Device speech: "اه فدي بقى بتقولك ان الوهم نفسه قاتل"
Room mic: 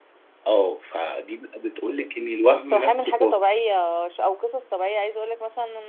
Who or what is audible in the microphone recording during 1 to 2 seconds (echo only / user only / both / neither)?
echo only